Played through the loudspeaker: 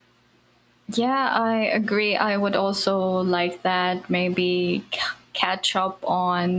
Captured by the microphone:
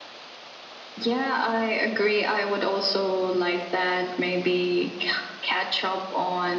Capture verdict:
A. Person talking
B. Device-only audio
B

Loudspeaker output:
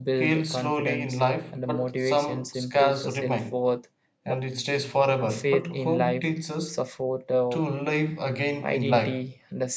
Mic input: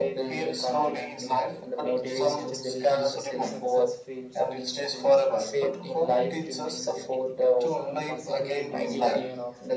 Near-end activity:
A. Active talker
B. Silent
A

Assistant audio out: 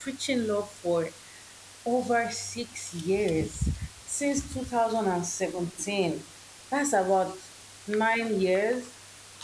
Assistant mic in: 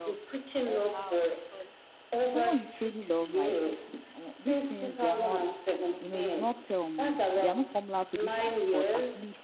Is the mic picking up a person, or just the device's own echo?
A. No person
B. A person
B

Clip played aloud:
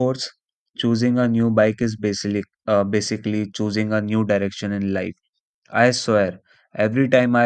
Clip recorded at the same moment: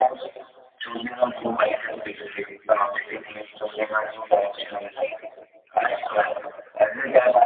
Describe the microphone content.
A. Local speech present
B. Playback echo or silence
B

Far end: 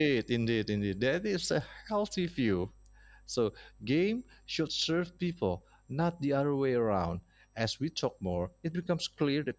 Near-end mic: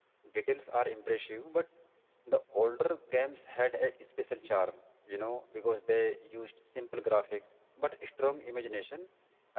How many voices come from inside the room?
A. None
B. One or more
B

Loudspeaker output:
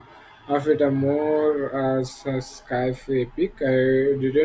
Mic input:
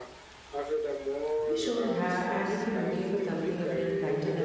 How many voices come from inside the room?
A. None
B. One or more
B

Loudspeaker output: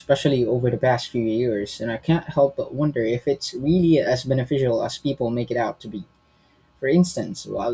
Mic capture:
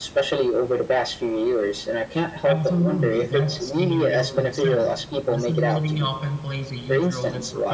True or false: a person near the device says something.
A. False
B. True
B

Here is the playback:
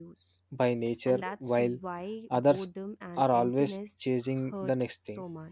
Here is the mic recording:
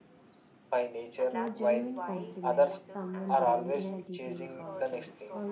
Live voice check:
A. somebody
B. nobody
A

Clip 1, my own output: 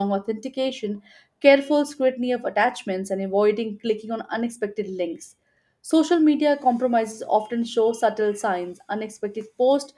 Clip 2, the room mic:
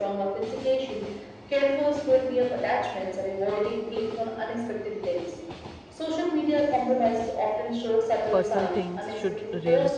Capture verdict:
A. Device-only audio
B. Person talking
B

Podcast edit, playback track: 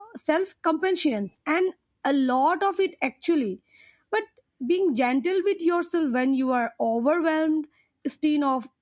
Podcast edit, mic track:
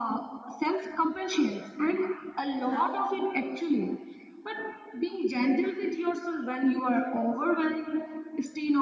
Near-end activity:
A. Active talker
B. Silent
A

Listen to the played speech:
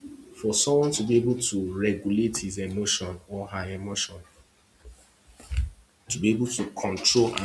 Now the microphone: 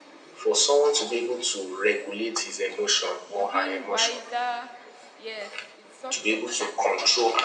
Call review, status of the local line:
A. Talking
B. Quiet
A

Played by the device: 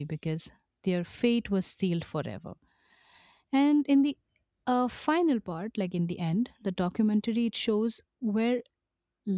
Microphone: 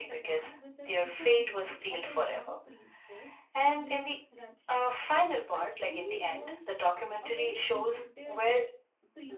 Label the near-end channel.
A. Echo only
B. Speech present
B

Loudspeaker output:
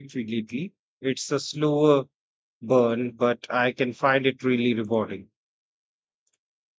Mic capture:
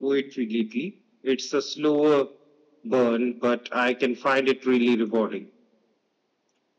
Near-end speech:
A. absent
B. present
A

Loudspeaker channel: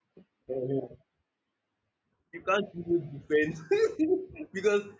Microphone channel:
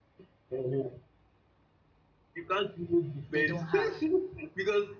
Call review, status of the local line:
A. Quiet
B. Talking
B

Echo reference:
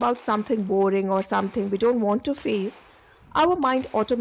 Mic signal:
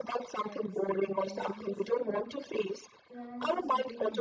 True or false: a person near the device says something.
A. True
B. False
A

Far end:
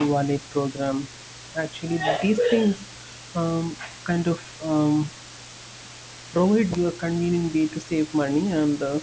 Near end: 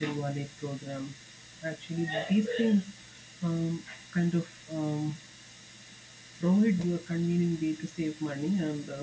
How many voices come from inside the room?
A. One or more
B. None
B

